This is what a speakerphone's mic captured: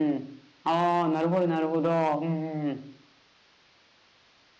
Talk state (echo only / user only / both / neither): user only